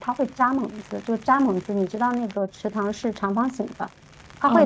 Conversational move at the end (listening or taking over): listening